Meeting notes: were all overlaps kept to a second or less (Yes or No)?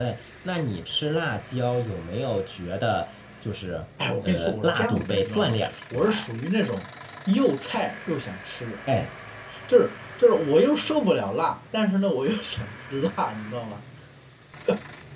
No